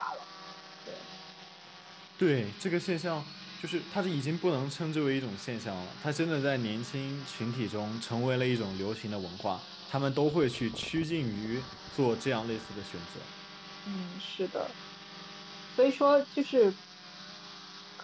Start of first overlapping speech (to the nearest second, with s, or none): none